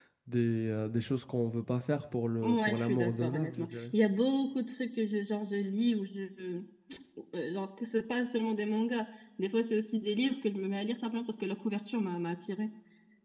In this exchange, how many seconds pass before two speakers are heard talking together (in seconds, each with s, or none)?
2.4 s